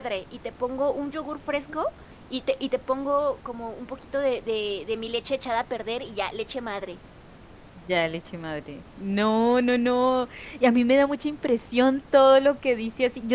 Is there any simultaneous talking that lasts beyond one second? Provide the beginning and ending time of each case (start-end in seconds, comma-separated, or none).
none